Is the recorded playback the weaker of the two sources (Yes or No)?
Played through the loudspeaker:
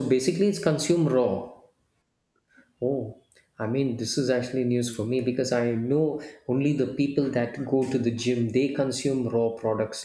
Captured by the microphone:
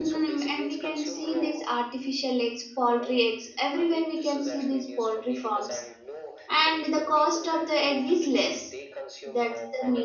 Yes